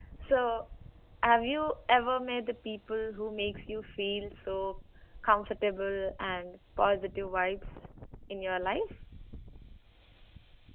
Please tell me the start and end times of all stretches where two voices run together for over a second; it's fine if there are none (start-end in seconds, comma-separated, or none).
none